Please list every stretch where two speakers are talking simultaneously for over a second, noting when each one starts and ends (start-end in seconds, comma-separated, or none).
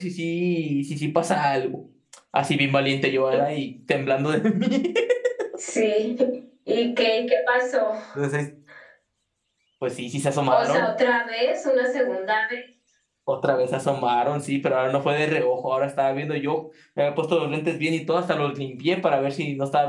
none